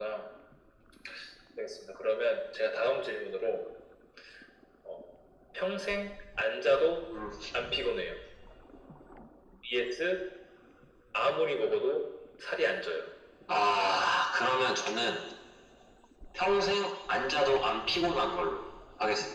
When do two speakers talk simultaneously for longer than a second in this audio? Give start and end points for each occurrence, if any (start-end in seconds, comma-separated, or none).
none